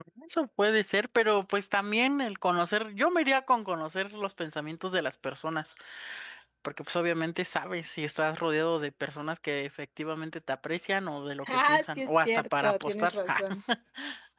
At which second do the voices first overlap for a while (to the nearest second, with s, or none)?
11 s